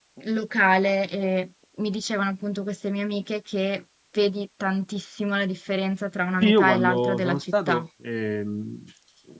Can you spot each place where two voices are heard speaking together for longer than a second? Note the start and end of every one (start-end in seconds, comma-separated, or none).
6.4-7.8